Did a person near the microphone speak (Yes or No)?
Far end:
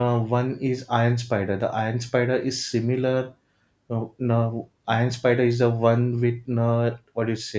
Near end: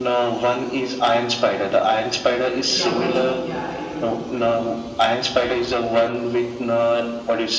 Yes